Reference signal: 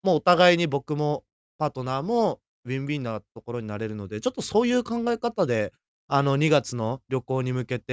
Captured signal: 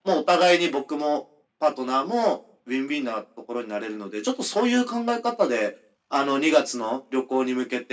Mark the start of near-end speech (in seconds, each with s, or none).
none